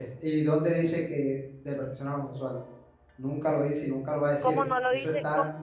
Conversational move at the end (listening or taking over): taking over